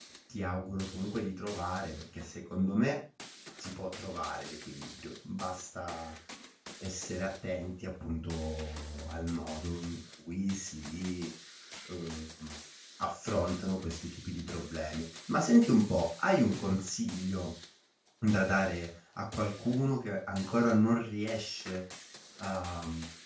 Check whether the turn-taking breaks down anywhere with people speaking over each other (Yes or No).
No